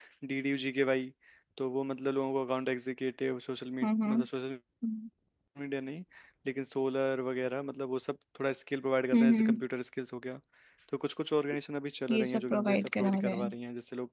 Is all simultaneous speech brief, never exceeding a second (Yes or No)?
No